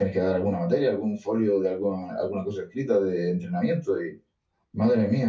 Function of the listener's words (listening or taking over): listening